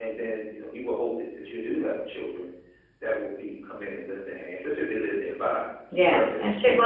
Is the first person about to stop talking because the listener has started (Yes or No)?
Yes